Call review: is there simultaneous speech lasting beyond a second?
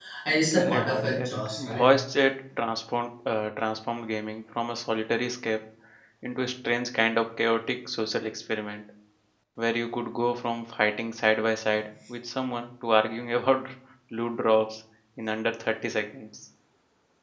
Yes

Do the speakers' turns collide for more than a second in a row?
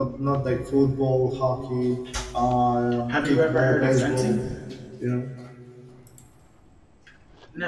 Yes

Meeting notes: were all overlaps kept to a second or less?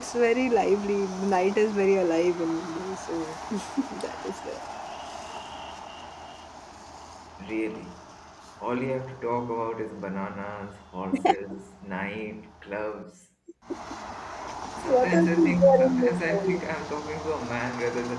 No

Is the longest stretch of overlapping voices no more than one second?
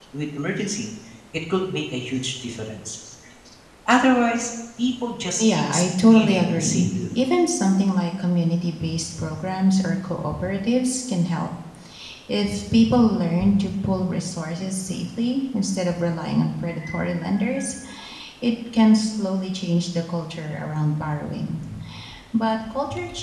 No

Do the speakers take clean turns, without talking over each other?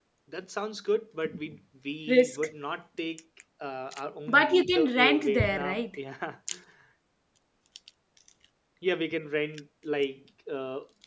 No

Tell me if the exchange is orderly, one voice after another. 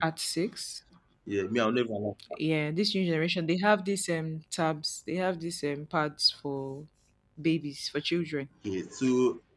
Yes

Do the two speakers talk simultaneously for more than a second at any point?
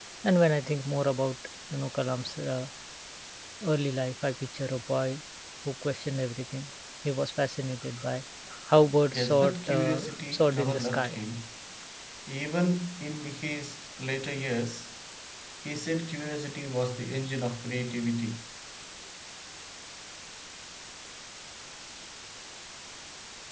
Yes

